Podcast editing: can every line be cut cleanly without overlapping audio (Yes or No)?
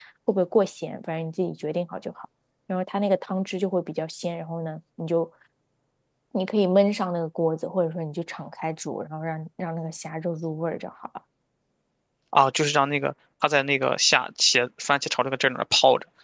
Yes